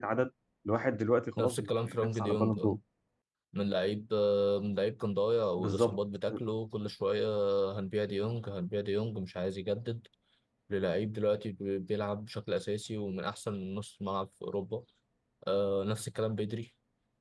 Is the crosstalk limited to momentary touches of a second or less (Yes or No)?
No